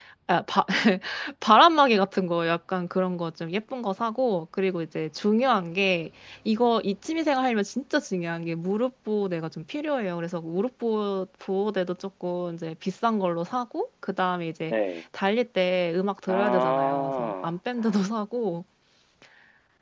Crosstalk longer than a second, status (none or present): present